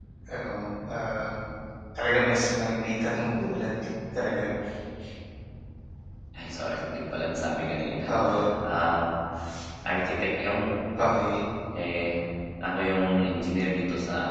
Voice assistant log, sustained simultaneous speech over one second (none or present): none